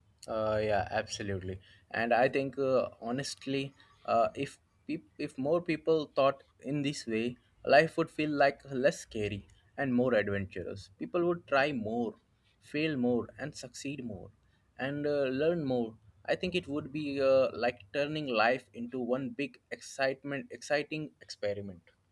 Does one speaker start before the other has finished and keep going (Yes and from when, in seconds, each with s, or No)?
No